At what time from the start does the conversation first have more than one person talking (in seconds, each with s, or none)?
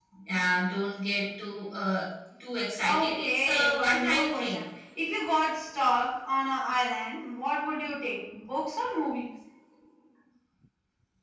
2.8 s